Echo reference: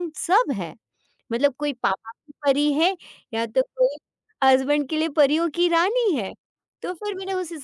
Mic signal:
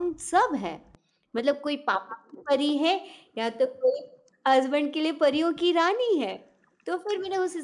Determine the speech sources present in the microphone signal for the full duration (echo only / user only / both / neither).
echo only